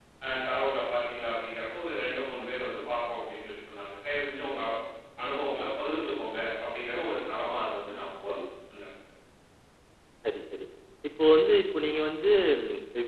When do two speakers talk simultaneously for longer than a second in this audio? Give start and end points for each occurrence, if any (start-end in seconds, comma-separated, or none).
none